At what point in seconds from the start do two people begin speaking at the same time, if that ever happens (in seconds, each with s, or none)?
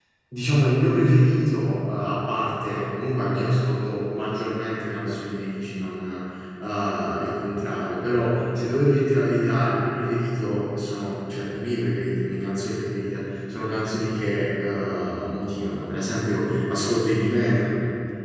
none